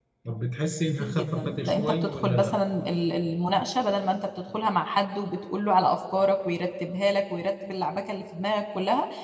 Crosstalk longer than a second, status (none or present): present